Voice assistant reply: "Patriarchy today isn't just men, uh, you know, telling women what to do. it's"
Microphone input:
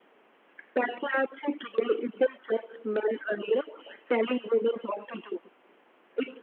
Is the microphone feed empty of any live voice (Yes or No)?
Yes